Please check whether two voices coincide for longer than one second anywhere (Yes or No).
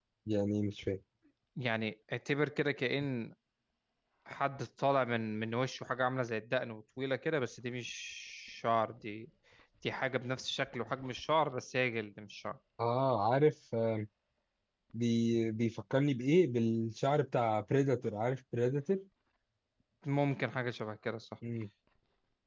No